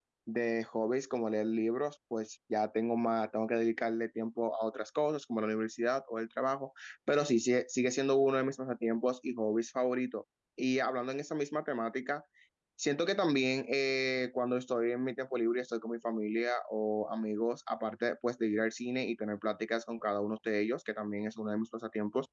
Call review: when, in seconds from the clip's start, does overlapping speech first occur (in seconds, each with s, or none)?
none